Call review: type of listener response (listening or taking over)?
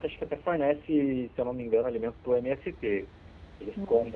listening